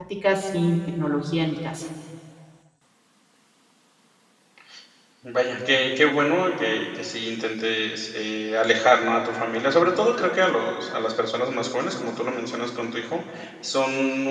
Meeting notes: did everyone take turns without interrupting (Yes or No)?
Yes